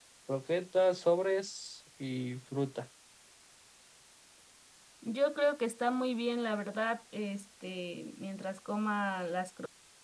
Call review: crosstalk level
none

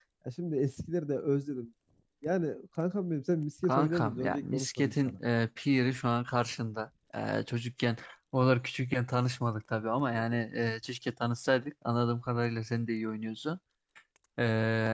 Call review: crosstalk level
present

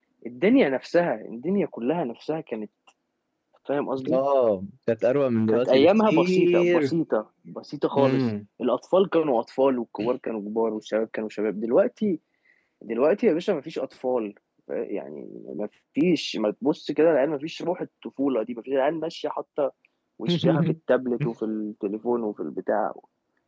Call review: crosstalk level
present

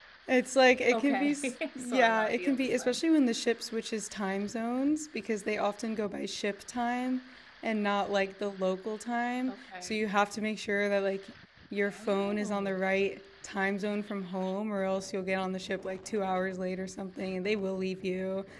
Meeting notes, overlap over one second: present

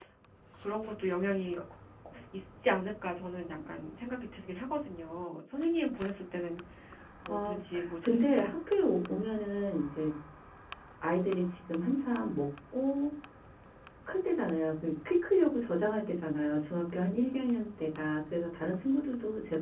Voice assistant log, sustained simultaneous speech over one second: none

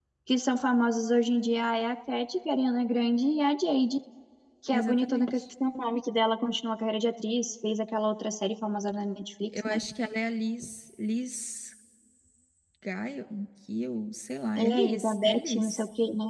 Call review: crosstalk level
present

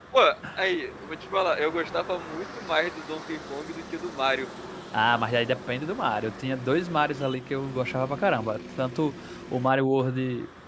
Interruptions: none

